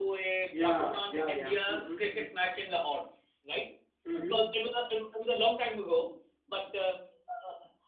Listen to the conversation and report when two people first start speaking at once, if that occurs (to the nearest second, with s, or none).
1 s